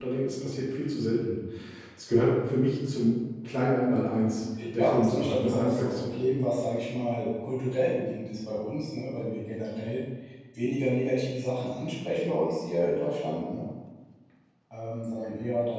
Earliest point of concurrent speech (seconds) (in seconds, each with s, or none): 4.5 s